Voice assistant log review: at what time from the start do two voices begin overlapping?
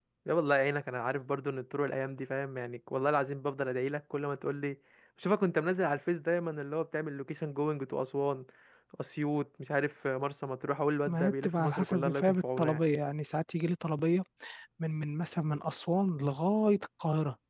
11.1 s

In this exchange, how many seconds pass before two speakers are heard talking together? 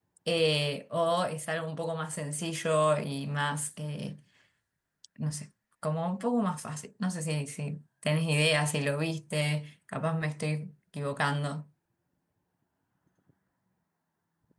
none

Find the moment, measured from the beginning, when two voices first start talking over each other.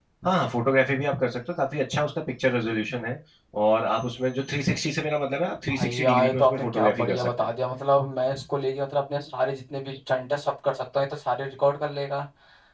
5.7 s

